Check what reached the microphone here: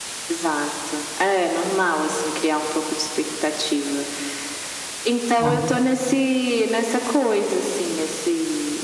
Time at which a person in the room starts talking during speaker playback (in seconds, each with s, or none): 5.4 s